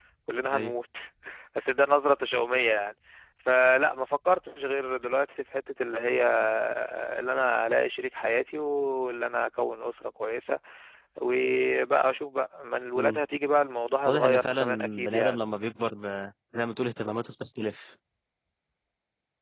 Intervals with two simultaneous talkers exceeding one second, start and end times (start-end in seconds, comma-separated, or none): 14.1-15.4